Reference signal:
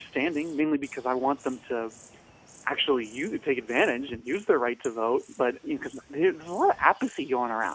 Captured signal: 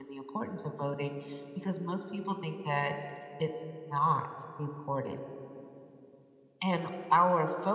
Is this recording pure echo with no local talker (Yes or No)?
No